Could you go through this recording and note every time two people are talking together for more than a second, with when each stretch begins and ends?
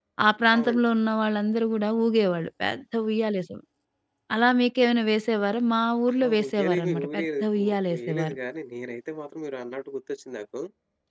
6.2-8.4

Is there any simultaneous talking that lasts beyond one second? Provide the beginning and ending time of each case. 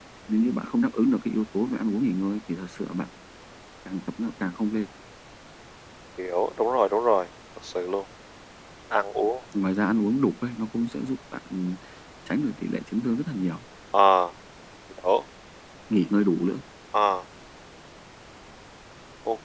none

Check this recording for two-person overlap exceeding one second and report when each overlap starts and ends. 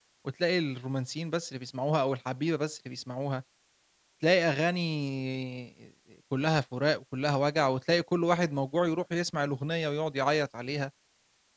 none

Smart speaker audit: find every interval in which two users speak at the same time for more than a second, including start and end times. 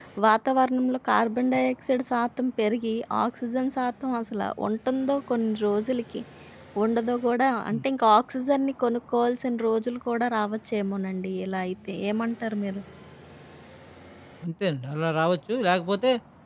none

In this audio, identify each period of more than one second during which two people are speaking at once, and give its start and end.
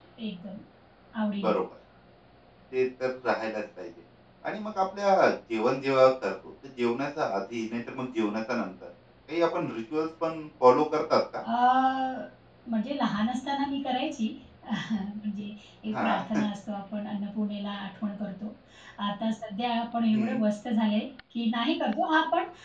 none

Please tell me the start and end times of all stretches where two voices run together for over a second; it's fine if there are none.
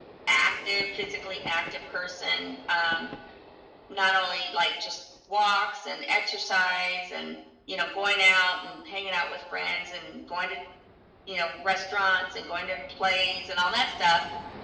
none

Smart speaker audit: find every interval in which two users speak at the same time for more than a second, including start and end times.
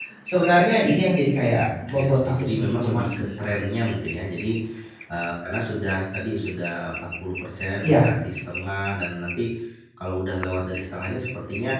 1.9-3.2

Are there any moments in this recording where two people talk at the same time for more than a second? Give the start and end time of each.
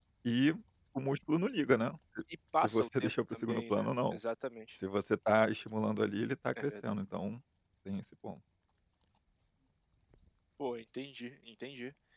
2.6-4.2

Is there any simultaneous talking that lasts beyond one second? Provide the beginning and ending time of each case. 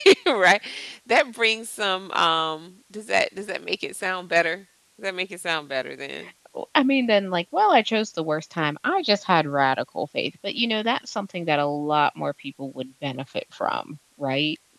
none

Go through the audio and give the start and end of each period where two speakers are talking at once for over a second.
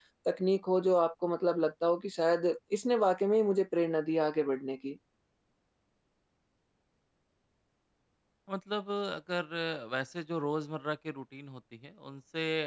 none

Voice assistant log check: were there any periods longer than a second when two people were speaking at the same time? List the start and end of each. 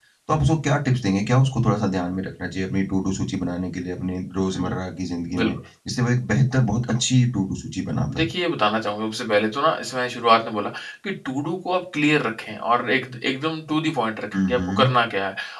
none

